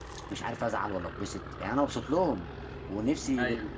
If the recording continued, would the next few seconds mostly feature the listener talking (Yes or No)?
No